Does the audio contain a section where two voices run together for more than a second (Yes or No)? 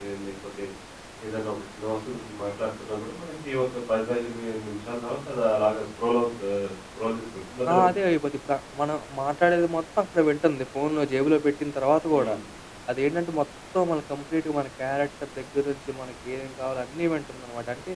No